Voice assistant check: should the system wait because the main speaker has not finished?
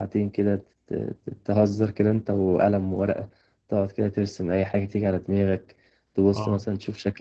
Yes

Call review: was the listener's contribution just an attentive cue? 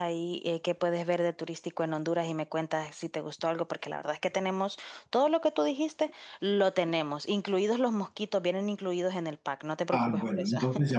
No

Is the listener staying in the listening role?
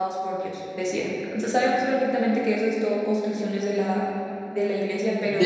No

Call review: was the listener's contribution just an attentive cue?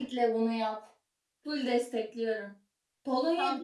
Yes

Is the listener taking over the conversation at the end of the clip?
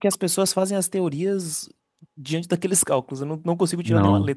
Yes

